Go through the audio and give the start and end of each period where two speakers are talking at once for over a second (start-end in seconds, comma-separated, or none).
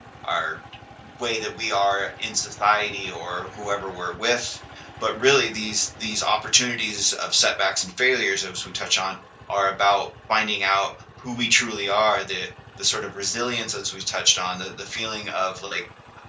none